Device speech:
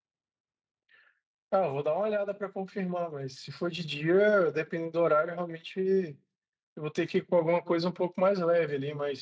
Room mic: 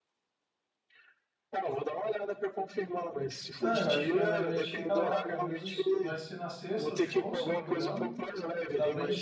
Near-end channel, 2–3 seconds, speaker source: echo only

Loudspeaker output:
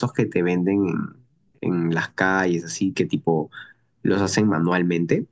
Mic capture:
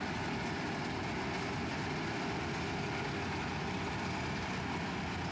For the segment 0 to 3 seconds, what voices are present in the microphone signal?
neither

